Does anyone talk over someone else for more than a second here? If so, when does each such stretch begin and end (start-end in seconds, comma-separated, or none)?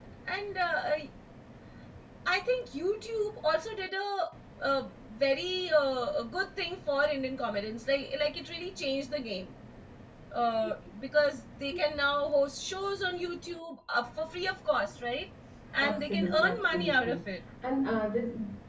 15.8-17.2